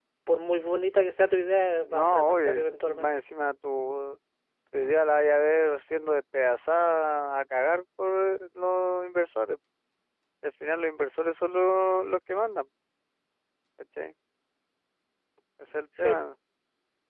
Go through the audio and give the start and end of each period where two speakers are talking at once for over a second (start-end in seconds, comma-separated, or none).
1.9-3.2